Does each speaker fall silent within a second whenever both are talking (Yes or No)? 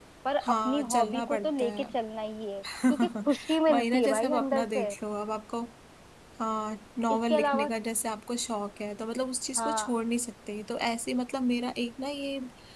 No